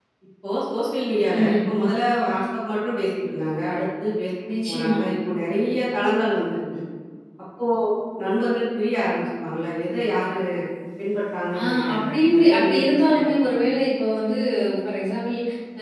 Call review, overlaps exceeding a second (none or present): present